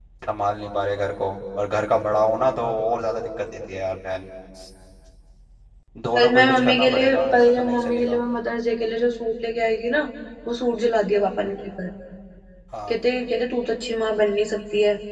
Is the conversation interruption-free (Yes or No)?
No